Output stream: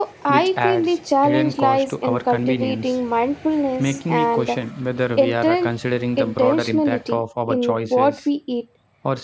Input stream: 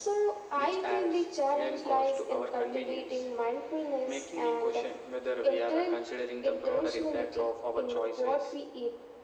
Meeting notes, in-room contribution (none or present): none